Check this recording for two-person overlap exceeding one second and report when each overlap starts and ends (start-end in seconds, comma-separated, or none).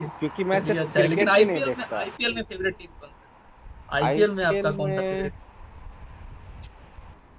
0.5-2.0, 4.0-5.3